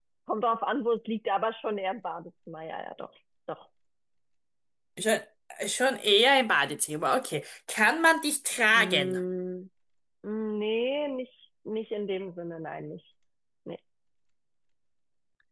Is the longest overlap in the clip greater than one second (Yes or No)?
No